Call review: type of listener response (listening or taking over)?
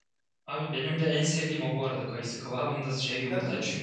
listening